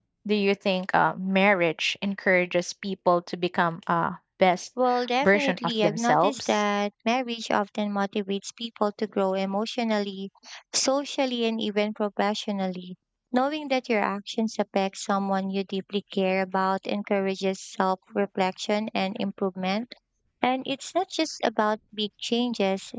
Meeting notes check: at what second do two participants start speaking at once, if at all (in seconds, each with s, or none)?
5.2 s